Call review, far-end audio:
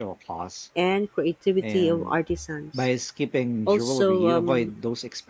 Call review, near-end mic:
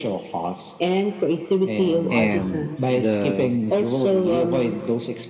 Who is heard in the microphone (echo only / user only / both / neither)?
both